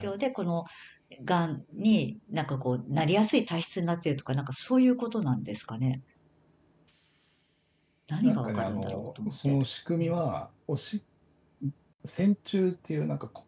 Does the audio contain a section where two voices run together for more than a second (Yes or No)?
Yes